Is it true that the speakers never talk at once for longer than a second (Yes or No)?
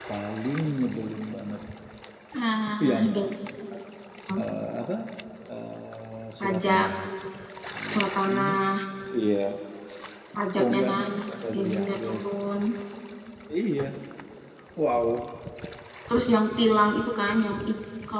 No